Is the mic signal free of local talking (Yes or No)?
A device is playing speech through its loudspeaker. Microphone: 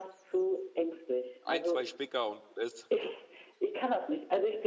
No